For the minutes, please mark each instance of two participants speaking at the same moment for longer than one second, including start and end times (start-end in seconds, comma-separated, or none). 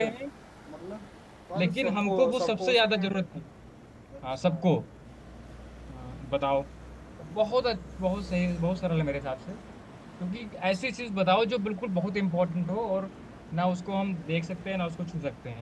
1.6-3.0